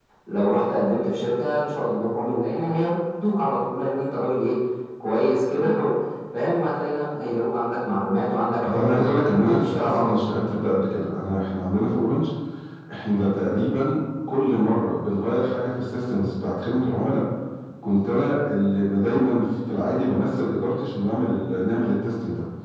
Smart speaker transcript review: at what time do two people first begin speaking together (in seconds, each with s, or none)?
8.6 s